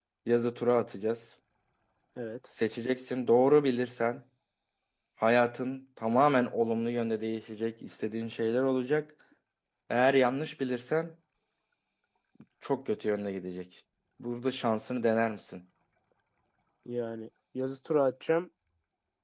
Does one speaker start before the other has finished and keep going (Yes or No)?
No